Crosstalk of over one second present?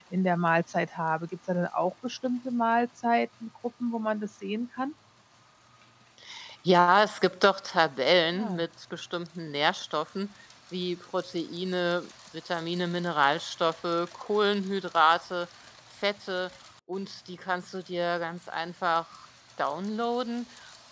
No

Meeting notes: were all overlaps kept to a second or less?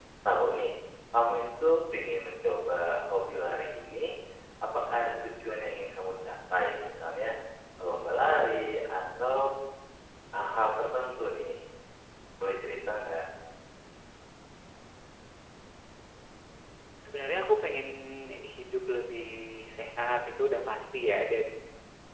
Yes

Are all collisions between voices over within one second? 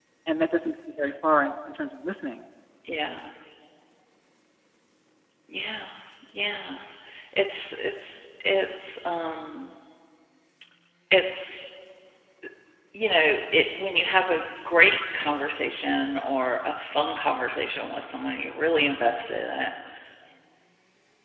Yes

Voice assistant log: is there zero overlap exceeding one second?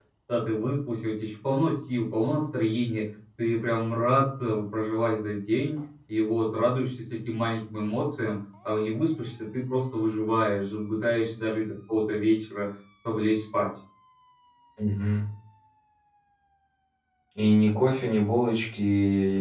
Yes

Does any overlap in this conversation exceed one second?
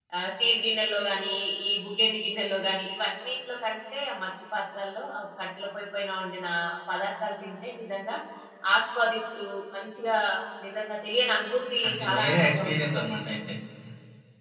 Yes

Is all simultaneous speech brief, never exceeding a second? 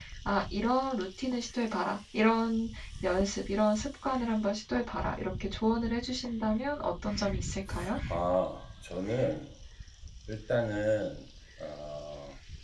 Yes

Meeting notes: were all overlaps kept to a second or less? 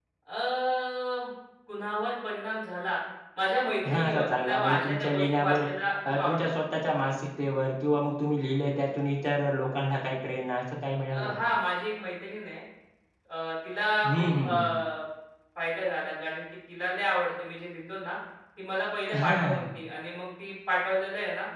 No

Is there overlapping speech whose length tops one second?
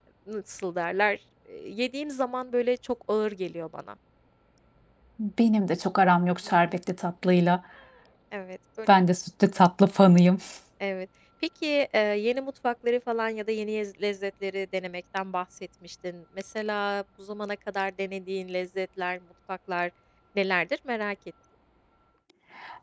No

